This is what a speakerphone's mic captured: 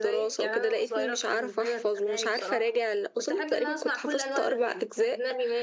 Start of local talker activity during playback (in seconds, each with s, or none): none